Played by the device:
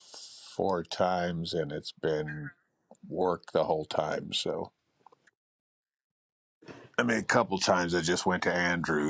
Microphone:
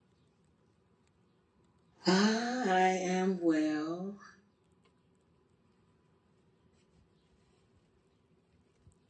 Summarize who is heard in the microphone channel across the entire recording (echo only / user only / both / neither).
user only